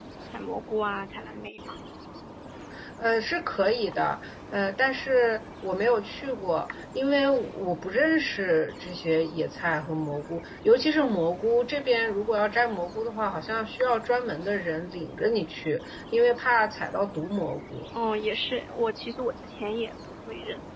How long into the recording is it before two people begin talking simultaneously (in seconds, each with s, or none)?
none